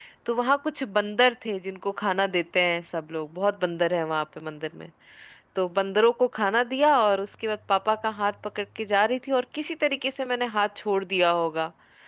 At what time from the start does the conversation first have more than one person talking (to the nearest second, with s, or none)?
none